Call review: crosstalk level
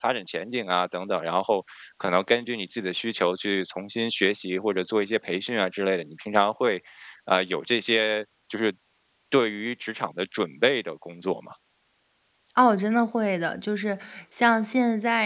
none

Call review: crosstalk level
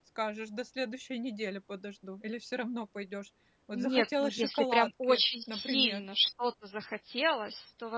present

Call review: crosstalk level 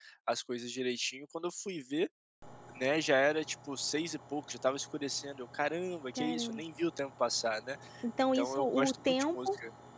present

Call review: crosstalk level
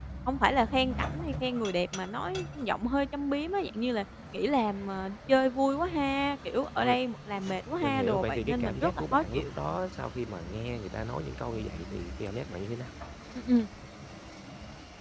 present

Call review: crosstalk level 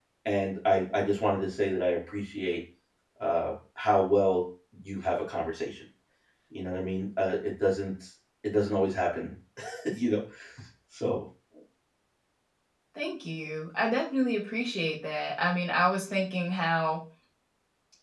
none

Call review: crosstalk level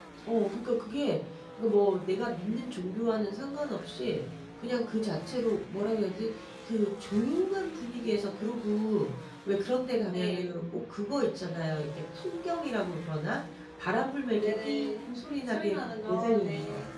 present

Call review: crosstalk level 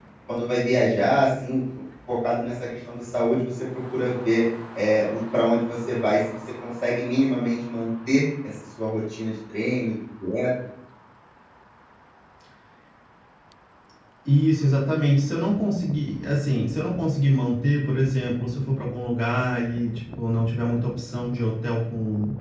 none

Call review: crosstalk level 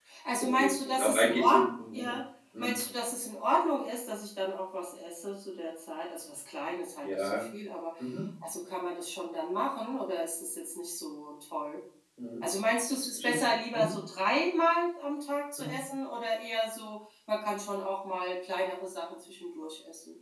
present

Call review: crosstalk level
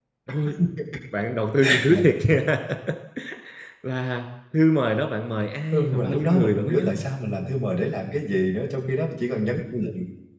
present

